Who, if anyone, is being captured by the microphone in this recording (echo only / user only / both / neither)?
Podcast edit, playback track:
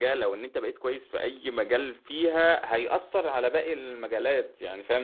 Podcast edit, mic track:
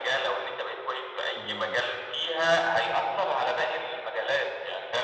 both